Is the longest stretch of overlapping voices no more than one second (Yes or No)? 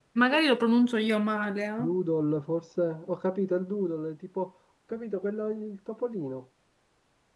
Yes